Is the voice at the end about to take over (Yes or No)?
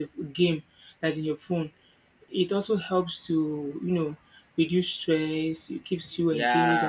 Yes